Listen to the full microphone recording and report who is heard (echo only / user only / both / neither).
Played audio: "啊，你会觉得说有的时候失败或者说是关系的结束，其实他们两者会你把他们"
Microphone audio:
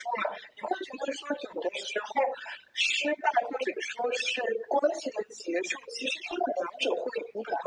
echo only